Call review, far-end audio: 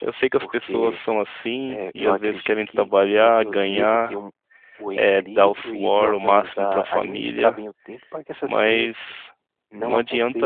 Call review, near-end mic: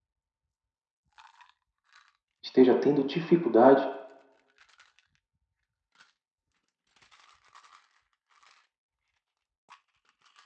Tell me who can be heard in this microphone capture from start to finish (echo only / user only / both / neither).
user only